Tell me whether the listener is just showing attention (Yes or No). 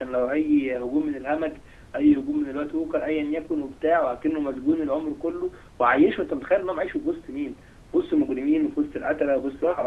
No